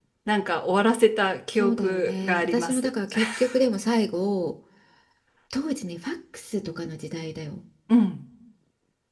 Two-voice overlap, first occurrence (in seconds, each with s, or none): 1.6 s